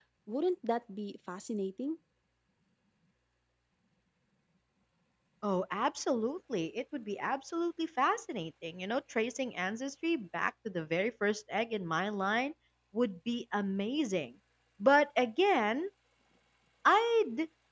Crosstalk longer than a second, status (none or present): none